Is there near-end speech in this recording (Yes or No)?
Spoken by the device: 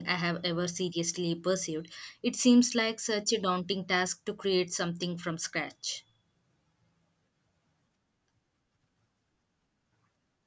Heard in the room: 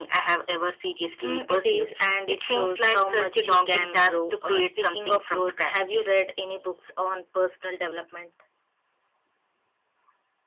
Yes